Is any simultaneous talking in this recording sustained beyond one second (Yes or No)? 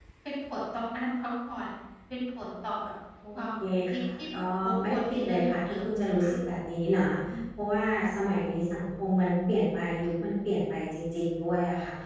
Yes